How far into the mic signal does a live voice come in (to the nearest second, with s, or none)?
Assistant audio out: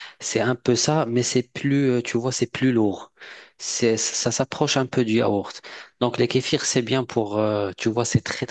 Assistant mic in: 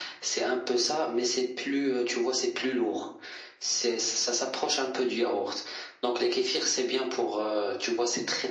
none